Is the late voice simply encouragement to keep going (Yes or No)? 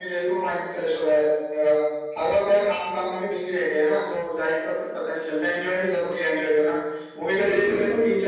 Yes